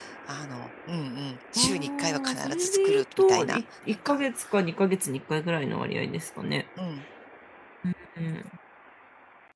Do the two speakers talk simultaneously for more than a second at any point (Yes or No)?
Yes